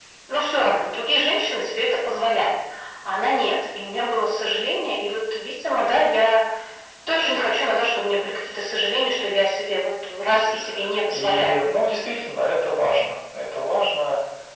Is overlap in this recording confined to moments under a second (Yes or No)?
Yes